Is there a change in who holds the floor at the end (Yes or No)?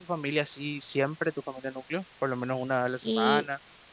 Yes